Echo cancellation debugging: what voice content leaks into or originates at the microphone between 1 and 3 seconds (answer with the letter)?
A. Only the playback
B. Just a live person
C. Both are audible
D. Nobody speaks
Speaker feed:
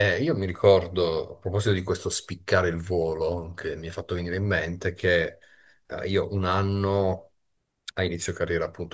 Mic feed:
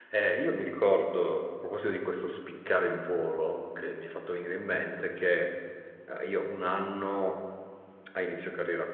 A